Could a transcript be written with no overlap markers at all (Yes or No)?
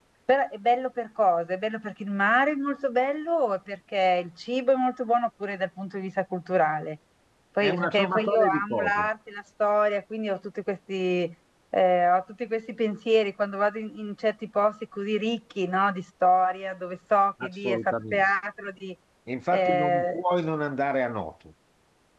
No